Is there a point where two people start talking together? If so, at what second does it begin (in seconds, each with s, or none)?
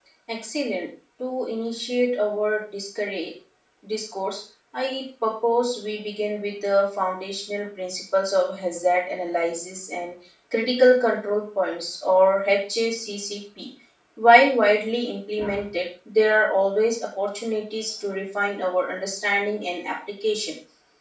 none